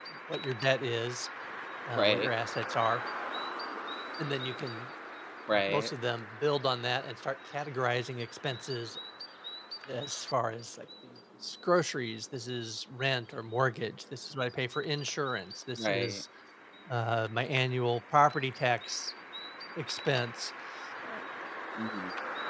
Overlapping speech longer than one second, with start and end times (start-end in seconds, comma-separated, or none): none